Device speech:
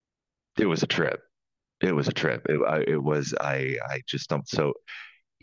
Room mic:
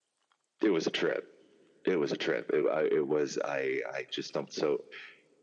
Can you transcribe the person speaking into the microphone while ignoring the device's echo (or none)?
none